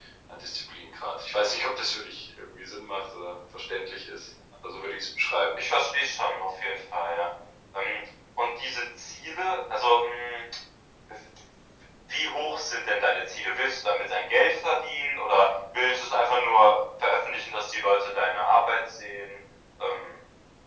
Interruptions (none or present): none